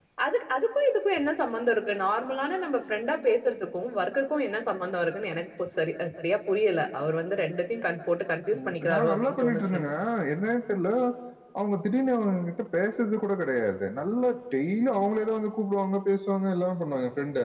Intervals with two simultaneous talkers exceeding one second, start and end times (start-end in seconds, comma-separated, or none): 8.6-9.8